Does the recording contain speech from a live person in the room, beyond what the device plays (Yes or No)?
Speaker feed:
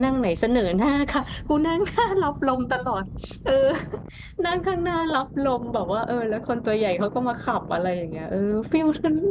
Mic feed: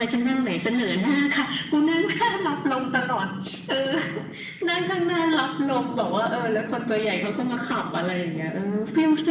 No